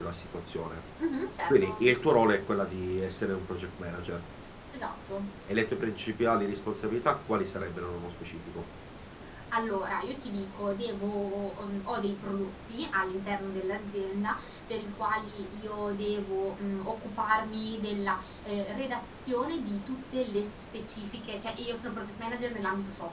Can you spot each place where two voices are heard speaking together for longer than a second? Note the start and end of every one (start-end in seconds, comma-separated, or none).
none